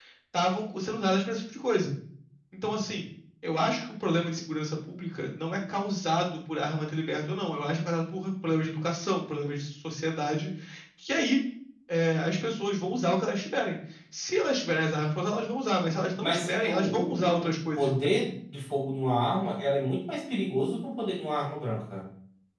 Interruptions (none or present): present